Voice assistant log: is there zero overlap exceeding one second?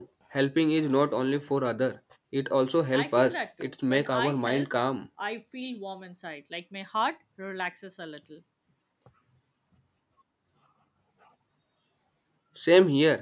No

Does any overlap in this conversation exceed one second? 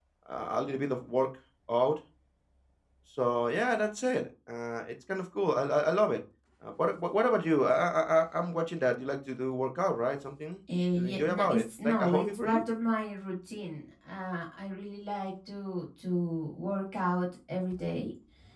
Yes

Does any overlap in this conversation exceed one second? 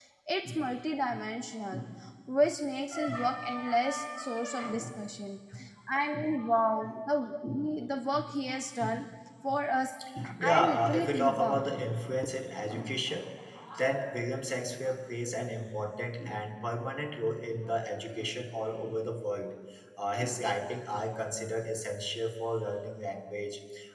Yes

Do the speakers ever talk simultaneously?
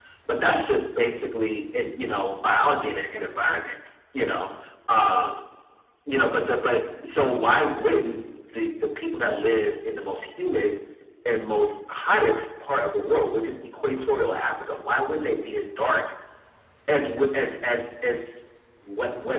No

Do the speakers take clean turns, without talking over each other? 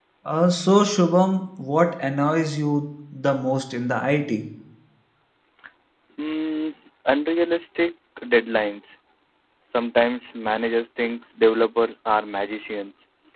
Yes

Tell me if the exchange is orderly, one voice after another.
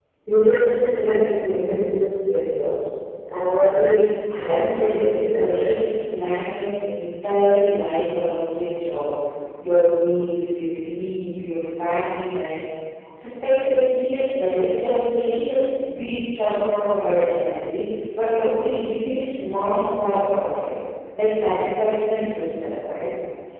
No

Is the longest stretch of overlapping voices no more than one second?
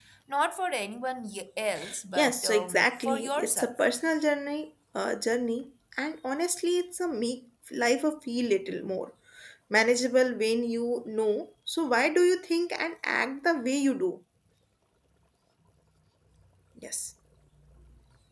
No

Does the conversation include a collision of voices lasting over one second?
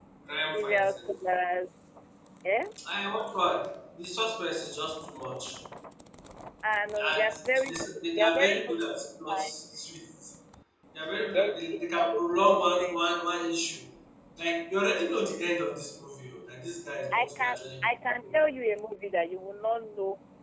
Yes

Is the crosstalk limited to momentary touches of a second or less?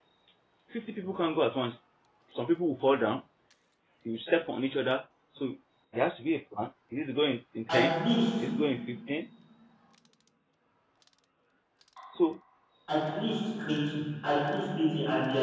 Yes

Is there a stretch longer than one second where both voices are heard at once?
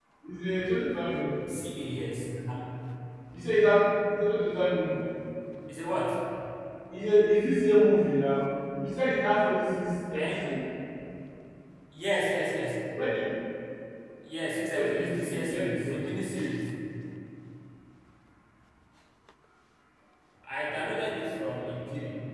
Yes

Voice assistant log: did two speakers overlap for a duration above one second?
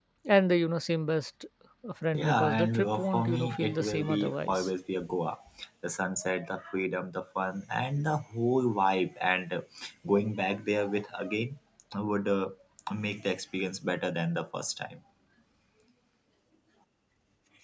Yes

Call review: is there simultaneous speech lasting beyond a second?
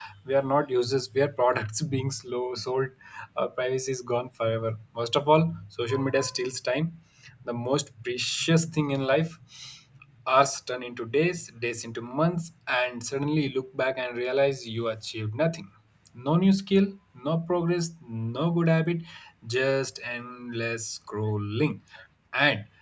No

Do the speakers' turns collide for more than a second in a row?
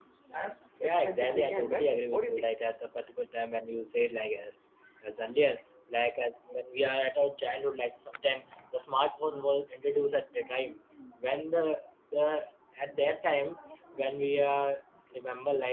Yes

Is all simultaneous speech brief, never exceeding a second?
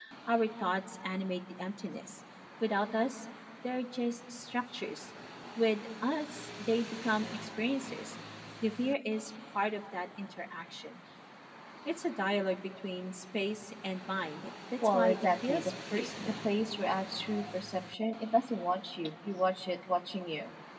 No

